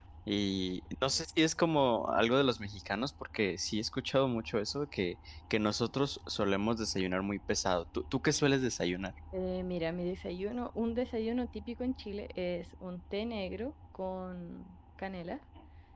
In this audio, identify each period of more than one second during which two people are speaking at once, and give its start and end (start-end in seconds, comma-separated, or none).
none